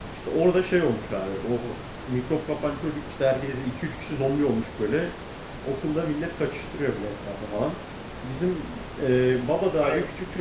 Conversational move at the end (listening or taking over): listening